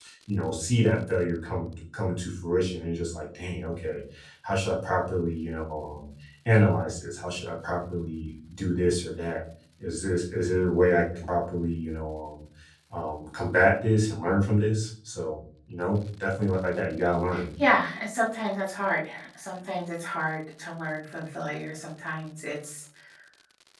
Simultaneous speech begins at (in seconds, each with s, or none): none